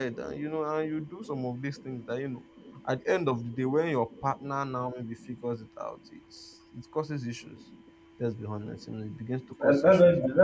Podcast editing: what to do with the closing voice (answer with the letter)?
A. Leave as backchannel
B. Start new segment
B